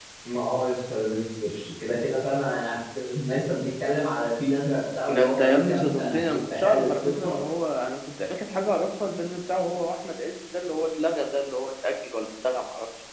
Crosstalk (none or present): present